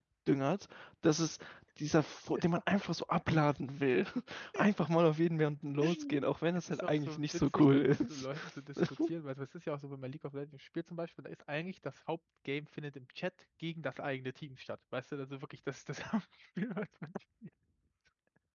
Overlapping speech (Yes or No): Yes